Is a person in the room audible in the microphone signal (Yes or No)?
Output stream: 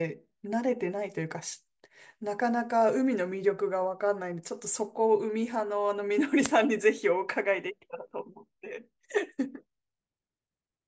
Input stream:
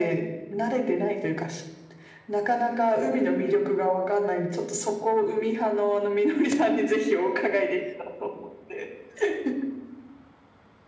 No